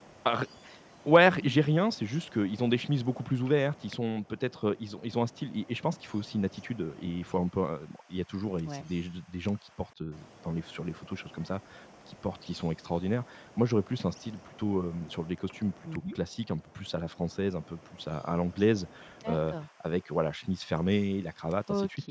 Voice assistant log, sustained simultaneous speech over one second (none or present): none